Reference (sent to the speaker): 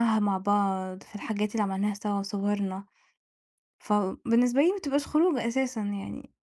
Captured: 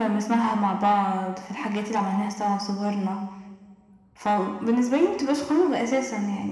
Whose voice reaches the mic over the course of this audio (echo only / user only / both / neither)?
echo only